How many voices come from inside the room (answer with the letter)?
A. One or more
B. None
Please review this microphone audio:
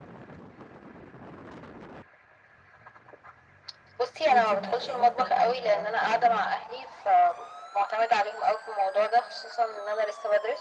A